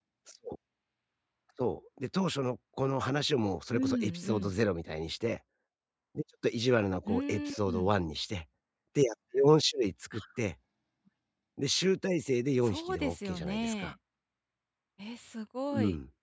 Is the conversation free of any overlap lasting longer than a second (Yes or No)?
No